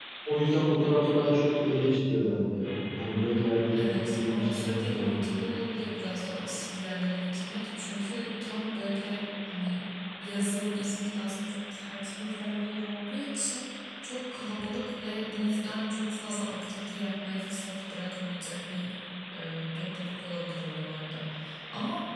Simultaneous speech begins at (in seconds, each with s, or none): 3.7 s